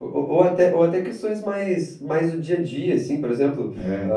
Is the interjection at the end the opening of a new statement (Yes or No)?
No